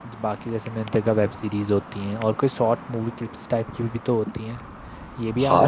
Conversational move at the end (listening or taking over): taking over